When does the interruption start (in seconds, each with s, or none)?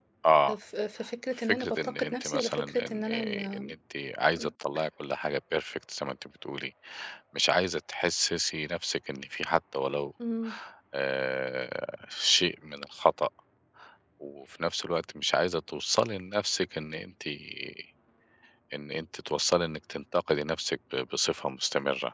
1.4 s